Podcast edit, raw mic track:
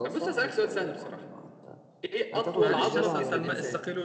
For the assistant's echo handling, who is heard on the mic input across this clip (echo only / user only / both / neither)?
both